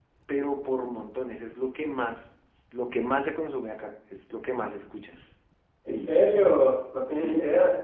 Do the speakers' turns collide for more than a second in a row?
No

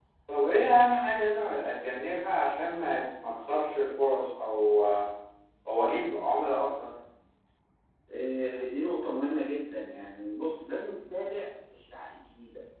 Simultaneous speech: No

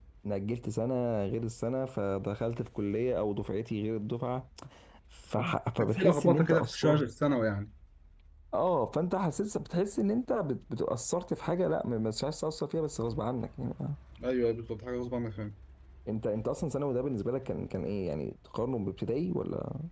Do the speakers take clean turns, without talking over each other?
No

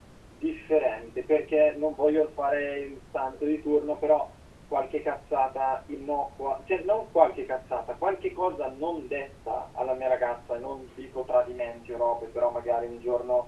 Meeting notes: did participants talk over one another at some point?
No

